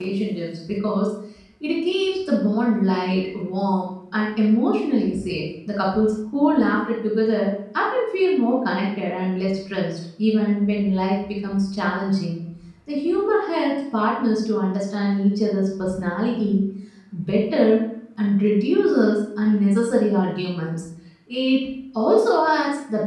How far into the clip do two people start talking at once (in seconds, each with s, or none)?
none